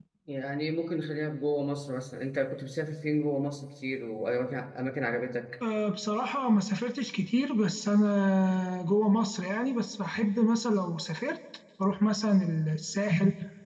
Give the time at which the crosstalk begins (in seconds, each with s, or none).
none